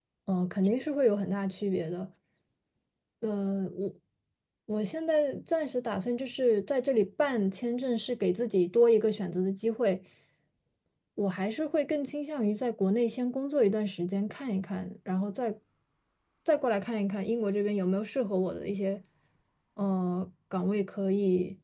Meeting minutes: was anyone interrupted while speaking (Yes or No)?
No